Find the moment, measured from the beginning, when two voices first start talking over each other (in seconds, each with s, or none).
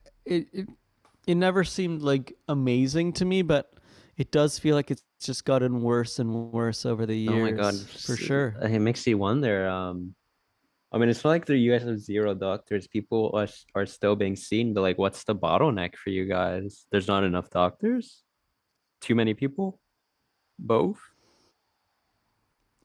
7.3 s